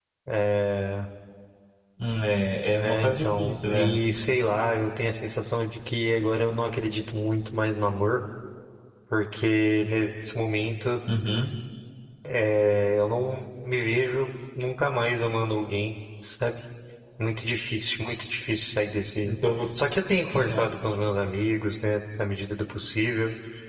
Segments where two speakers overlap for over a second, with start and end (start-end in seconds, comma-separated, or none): 2.7-4.0